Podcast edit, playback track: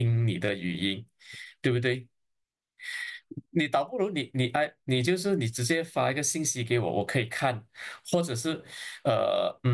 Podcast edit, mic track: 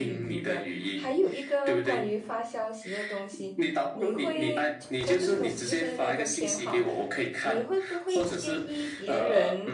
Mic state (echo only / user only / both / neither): both